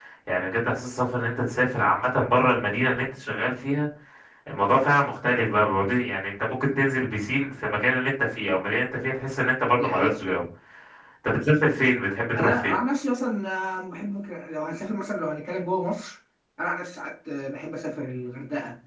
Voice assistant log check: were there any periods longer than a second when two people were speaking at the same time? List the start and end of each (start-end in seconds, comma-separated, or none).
none